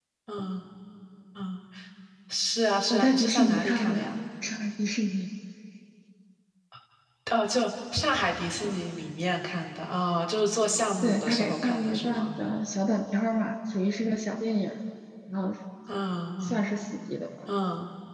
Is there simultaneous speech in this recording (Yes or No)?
Yes